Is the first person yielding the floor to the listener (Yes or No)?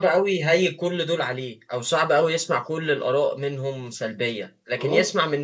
No